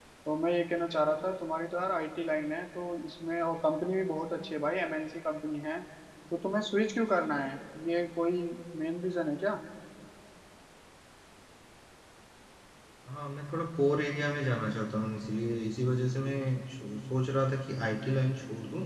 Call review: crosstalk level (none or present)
none